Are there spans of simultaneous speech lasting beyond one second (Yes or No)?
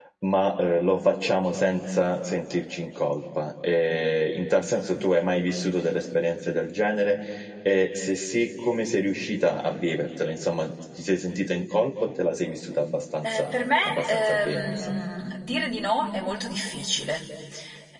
Yes